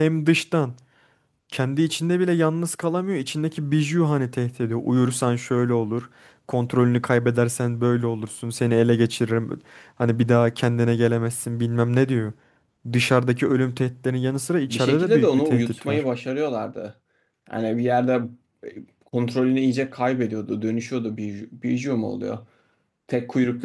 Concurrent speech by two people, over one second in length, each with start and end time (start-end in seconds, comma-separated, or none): 14.7-16.0